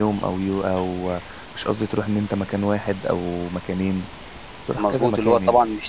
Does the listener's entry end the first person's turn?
Yes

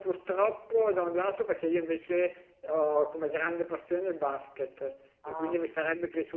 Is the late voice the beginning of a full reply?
No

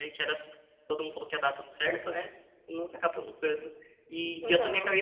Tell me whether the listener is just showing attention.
Yes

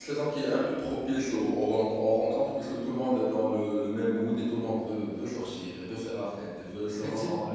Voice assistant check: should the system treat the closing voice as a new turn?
No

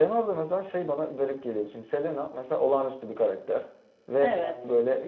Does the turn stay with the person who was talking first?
Yes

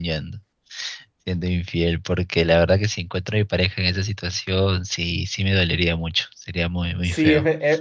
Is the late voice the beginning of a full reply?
Yes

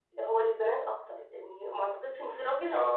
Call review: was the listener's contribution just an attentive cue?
Yes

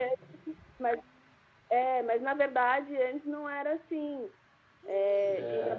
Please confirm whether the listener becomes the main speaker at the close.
No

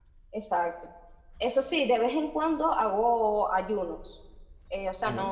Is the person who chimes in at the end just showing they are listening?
Yes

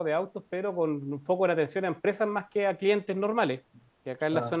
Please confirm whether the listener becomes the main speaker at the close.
No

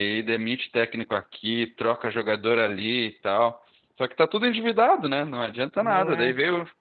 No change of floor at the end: Yes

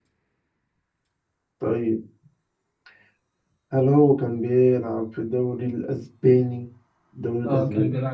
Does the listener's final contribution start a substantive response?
Yes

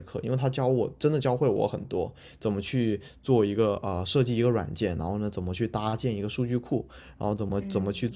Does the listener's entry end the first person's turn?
No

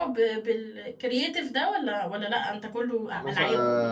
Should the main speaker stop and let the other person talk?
Yes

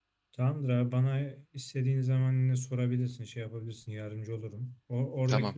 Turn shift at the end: No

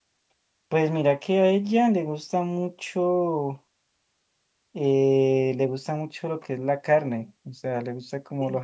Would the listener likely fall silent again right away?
Yes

